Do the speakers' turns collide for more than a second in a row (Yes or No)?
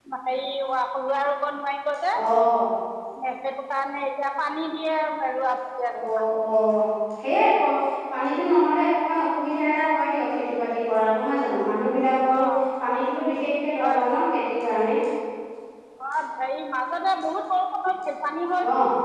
No